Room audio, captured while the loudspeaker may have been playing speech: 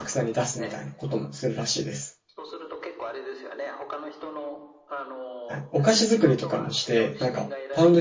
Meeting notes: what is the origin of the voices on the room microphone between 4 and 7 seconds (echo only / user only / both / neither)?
both